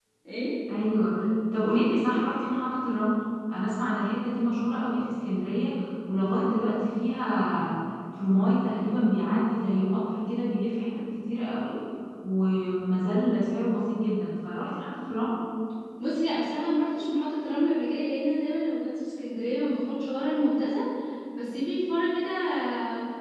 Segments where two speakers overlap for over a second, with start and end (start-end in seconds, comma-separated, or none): none